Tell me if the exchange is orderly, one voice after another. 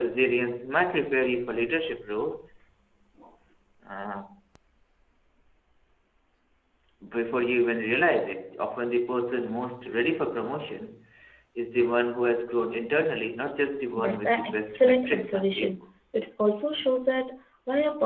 No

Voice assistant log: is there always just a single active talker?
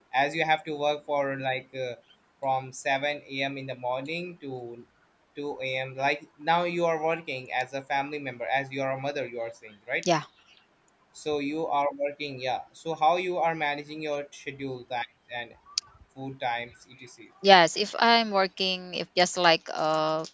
Yes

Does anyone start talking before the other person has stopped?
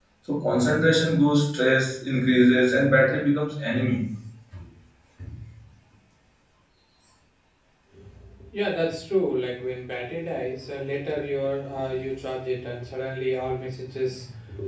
No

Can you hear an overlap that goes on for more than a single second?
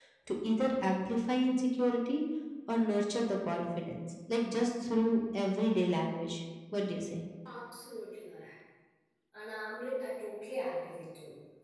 No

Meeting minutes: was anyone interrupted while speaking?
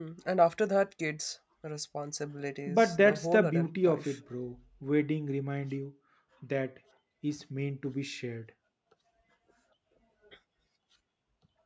Yes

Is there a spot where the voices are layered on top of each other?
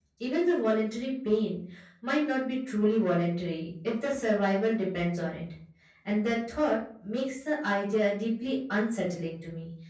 No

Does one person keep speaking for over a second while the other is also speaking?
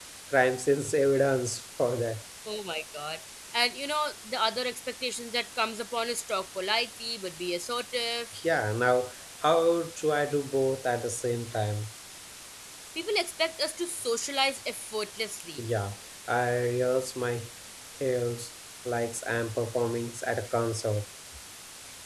No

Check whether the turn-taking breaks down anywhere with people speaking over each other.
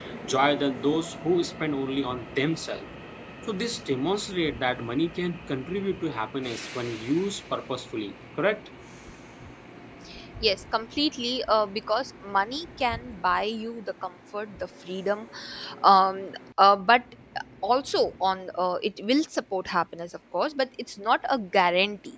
No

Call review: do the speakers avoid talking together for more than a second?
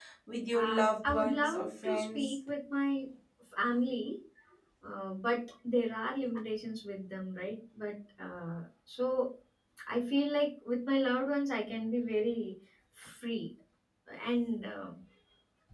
No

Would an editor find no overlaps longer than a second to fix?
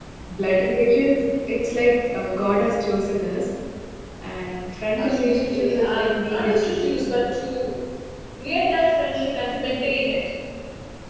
No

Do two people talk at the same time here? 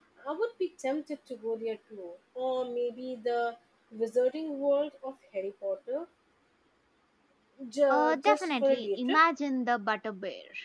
Yes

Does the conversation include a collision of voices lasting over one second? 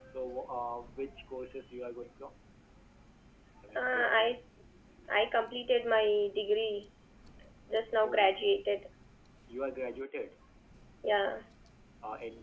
No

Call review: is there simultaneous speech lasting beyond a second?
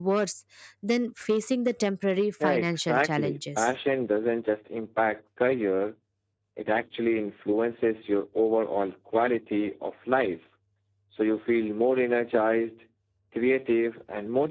Yes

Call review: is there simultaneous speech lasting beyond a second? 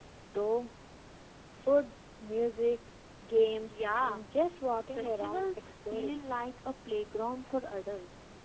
Yes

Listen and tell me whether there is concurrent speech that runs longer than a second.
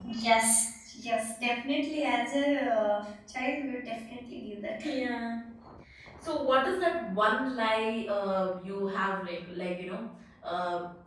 No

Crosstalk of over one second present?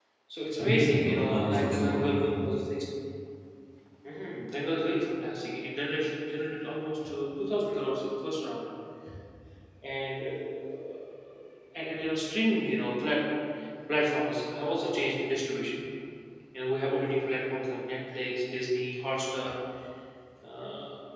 Yes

